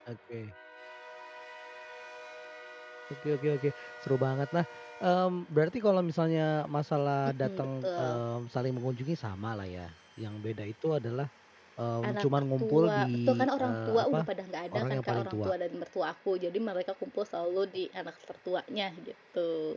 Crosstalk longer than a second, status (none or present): present